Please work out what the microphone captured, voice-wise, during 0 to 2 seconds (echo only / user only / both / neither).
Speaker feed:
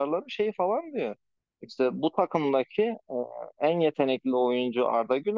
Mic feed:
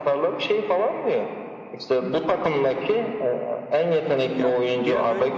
echo only